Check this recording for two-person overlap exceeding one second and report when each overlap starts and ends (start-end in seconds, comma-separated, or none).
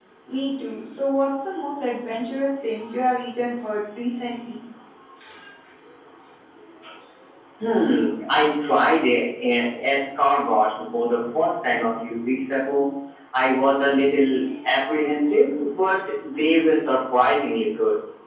none